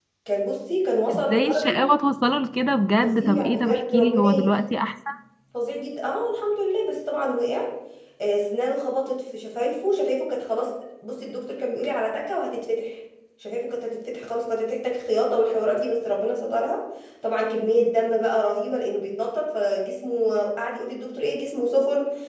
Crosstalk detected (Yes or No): Yes